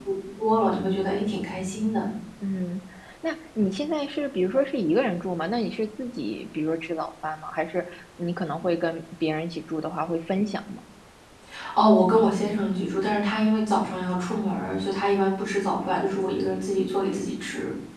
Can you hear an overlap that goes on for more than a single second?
No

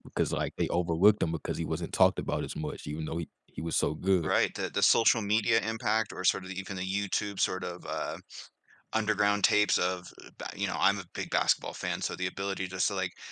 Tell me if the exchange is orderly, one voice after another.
Yes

